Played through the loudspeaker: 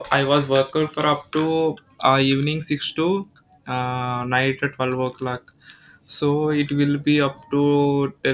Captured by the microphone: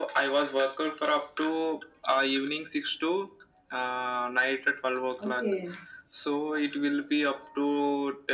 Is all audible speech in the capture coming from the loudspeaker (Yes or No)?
No